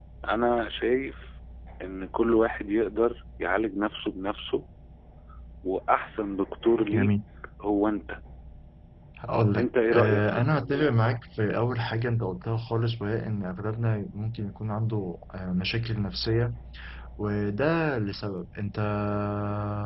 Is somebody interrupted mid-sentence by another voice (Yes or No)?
Yes